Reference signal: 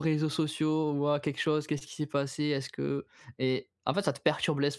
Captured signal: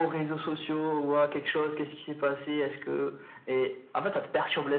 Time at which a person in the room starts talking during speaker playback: none

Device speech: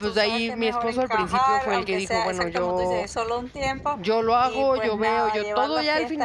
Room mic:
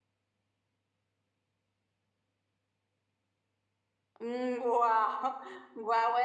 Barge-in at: 4.2 s

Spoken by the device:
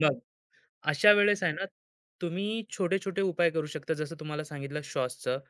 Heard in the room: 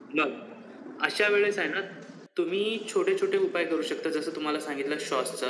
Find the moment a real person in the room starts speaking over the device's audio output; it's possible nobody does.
none

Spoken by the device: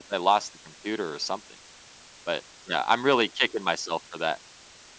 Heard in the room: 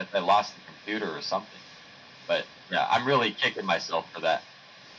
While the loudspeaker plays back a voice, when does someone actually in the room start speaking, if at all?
none

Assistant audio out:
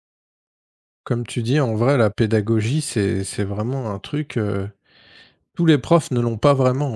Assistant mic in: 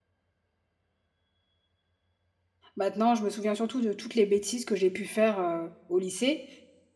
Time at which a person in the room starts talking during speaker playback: 2.8 s

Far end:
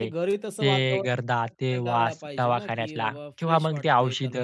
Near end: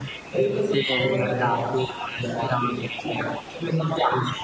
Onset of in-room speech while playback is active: 0.9 s

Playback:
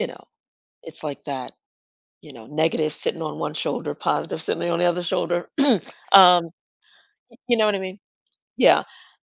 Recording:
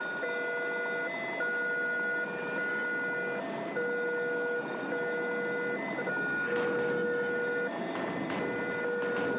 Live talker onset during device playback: none

